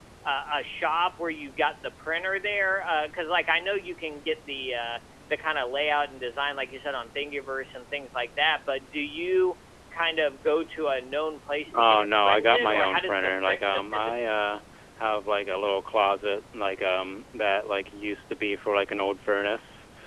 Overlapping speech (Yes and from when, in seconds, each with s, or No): Yes, from 11.7 s